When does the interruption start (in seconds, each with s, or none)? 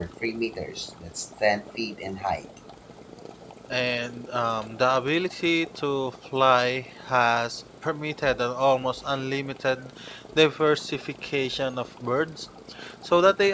none